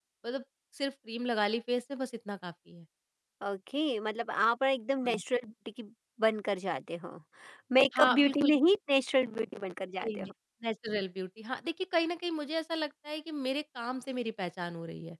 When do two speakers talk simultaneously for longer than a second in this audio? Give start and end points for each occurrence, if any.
none

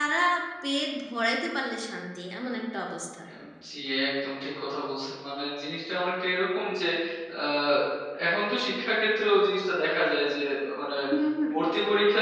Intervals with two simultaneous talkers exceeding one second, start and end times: none

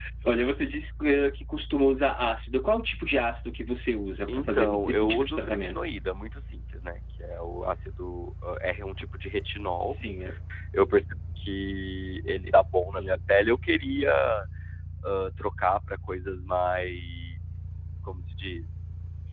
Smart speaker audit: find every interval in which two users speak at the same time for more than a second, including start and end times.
4.3-5.8

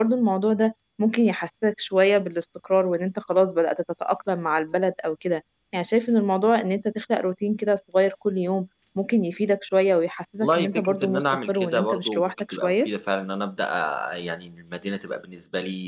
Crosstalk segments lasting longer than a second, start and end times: 10.4-12.9

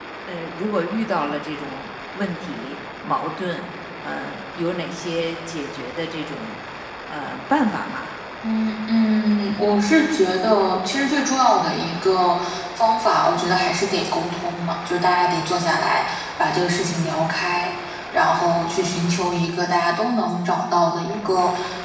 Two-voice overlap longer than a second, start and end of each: none

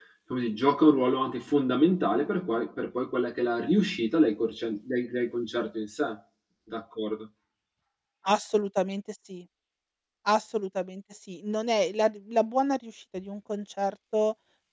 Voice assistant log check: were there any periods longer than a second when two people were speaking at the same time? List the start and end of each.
none

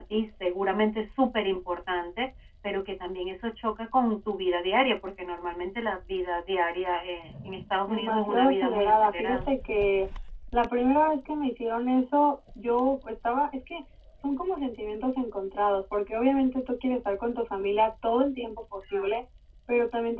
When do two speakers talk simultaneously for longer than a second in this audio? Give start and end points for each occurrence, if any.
7.9-9.5

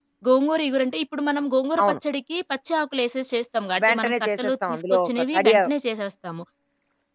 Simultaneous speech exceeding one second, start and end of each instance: 3.8-5.5

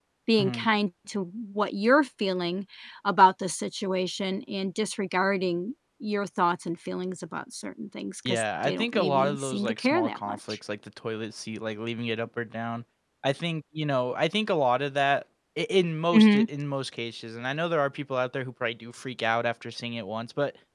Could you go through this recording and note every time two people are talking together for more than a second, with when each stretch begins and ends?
8.3-10.6

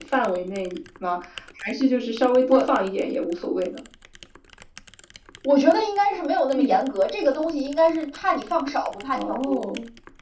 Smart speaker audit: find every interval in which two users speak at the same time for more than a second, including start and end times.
none

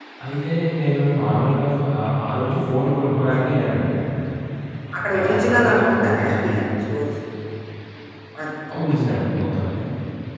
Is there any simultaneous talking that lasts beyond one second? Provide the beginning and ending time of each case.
5.1-6.3

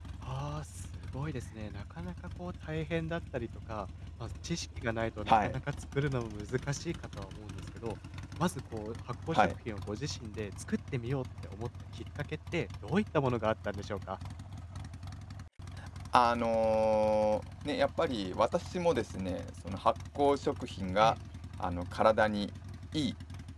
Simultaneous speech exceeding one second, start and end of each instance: none

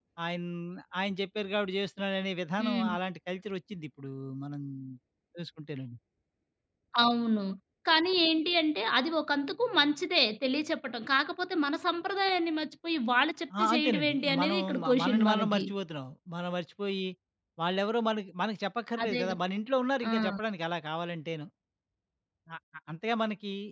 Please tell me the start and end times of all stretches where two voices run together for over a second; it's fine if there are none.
13.6-15.6

